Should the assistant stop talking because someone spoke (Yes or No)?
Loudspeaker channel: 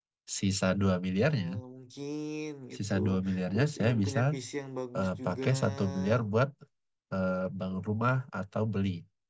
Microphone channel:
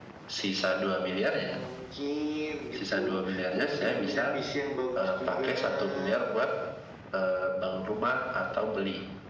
No